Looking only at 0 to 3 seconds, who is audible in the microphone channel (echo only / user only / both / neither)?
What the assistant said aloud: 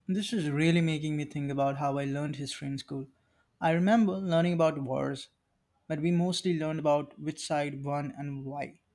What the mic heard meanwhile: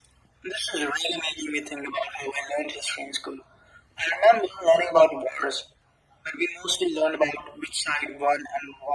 echo only